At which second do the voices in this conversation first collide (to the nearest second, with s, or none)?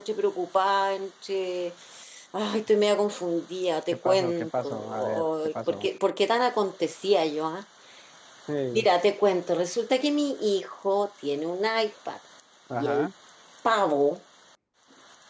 4 s